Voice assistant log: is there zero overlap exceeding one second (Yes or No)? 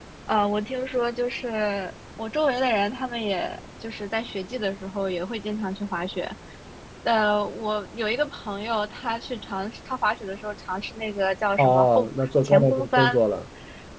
No